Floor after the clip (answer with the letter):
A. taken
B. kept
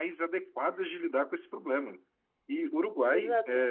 B